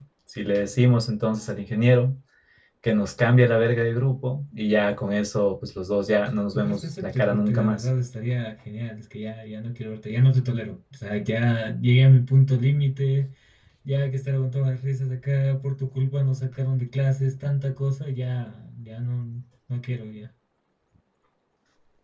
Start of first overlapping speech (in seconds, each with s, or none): 6.5 s